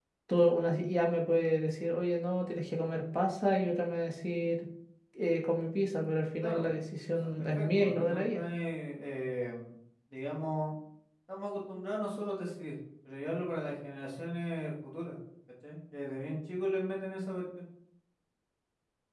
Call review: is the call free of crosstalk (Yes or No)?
No